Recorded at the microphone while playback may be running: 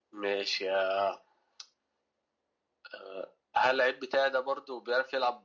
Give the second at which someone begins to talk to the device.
none

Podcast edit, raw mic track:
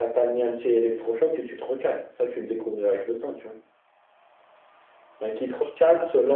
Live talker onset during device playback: none

